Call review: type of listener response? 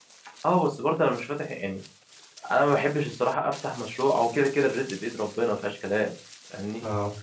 listening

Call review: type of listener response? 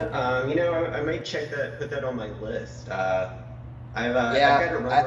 taking over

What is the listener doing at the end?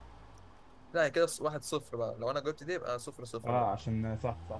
taking over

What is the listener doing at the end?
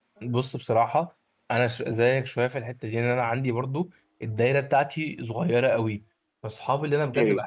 listening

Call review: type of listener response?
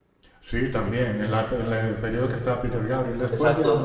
taking over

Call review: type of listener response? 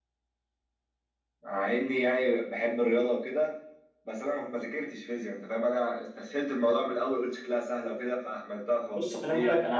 taking over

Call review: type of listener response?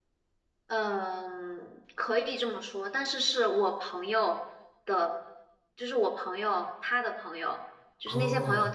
listening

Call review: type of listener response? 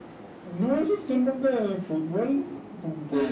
listening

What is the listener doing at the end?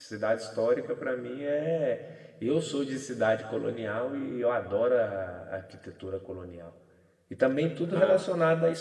listening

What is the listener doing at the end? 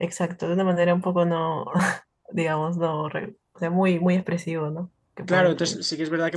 taking over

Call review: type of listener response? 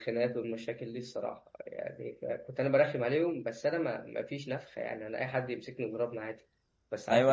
taking over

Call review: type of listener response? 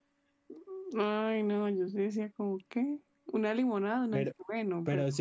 taking over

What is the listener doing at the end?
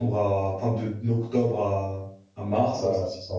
taking over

